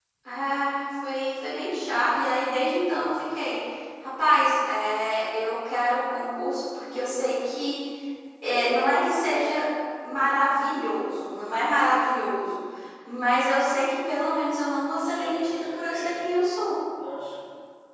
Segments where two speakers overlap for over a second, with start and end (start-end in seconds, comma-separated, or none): 15.0-16.2